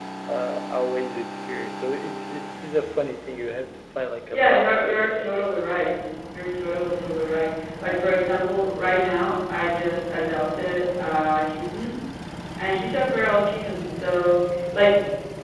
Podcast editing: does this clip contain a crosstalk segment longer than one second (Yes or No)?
Yes